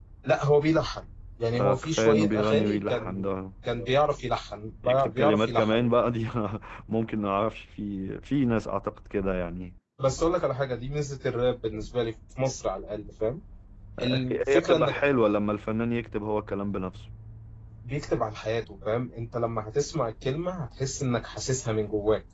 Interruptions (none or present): present